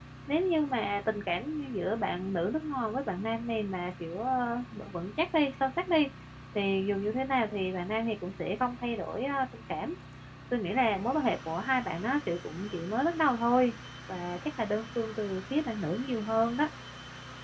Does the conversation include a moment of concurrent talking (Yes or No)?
No